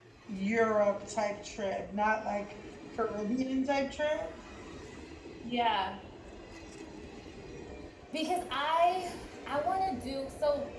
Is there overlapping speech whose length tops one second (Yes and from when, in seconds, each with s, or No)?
No